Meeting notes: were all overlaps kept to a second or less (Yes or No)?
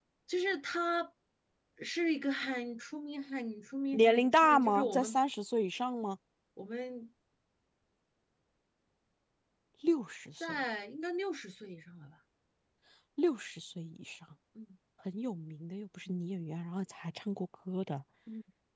No